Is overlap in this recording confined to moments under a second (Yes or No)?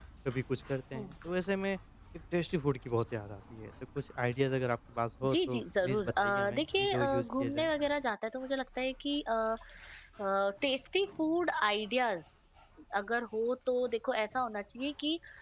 No